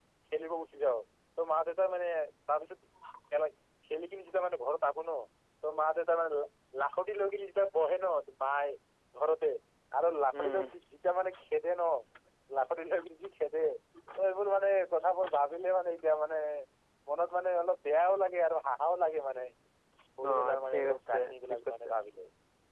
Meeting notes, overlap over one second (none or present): present